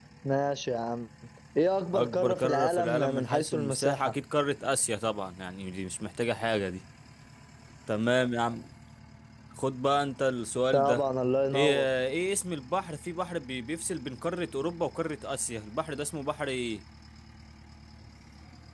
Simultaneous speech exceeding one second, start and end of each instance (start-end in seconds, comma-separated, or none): 1.9-4.1